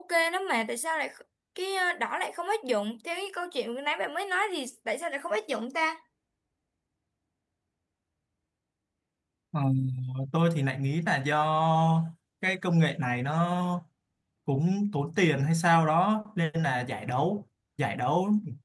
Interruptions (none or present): none